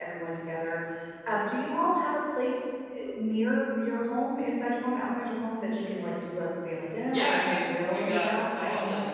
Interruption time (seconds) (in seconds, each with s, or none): 7.1 s